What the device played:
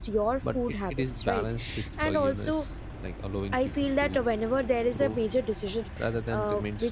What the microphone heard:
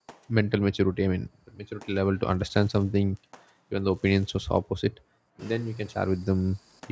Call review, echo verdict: none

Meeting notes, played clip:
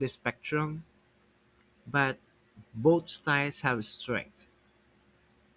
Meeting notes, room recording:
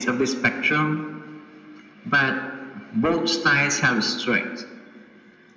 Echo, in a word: present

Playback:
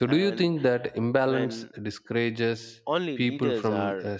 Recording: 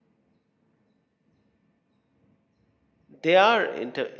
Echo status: none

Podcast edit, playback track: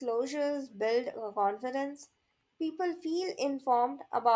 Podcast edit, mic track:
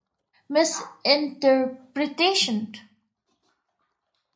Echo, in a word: none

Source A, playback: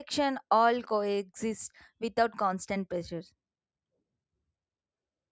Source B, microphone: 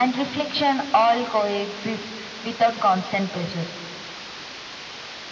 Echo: present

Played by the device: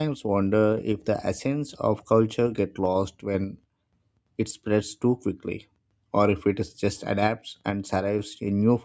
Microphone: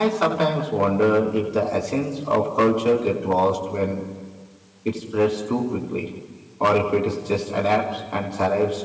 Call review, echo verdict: present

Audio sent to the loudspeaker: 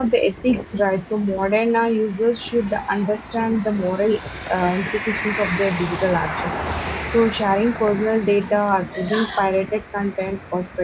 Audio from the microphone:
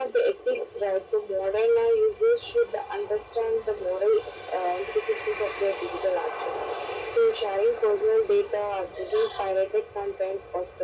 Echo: present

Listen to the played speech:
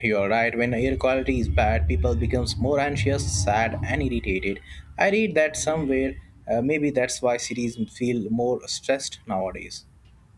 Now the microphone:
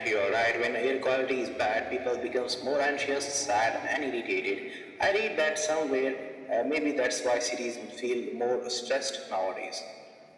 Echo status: present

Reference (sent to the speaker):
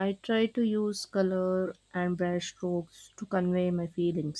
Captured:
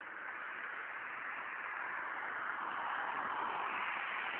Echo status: none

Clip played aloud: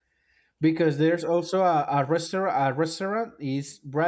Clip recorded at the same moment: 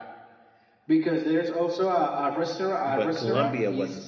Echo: present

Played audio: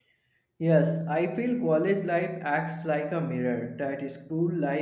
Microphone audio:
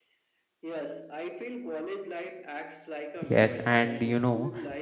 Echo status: present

